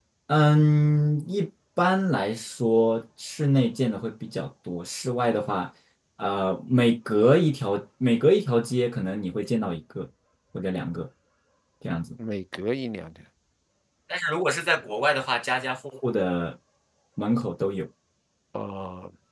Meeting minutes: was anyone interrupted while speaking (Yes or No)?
No